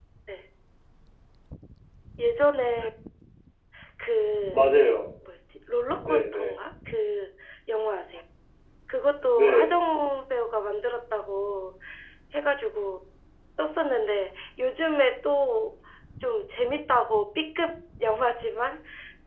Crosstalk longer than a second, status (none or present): none